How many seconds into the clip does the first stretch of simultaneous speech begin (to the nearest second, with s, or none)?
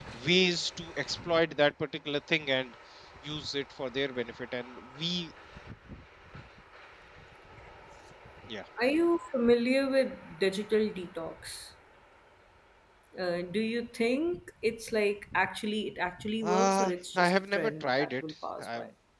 16 s